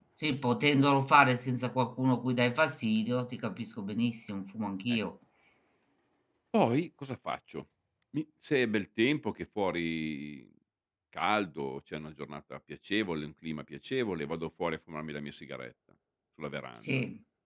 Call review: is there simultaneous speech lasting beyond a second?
No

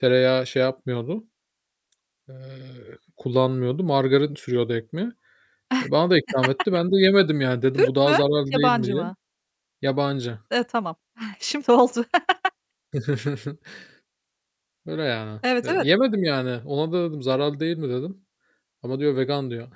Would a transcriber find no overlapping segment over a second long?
Yes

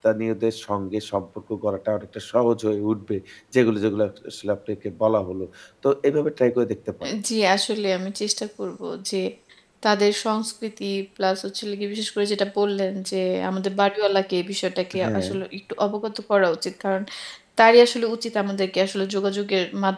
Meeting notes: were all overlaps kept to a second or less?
Yes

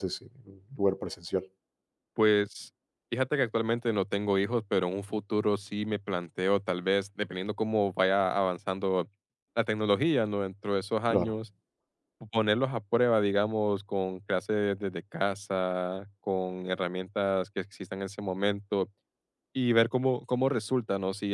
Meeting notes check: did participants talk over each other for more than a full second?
No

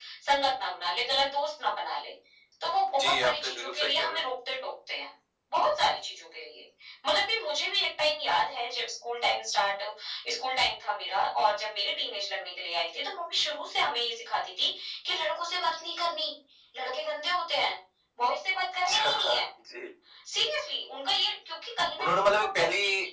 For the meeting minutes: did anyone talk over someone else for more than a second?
Yes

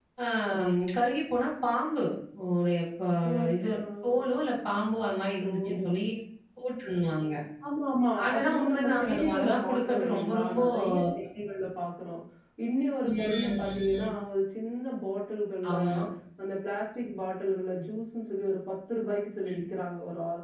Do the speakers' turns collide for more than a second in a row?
Yes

